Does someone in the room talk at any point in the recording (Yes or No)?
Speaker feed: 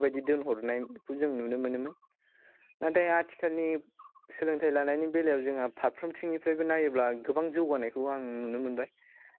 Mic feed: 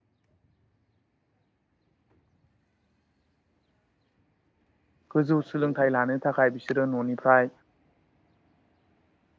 Yes